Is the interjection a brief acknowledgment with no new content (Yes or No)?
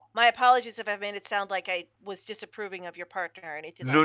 No